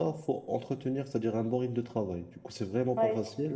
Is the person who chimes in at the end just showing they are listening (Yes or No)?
No